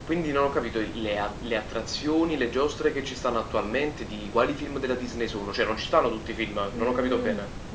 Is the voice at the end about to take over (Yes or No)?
Yes